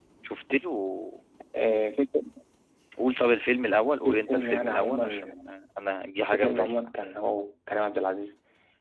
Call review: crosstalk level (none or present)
present